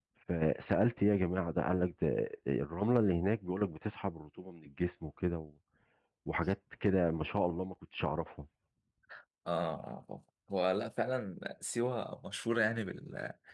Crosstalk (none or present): none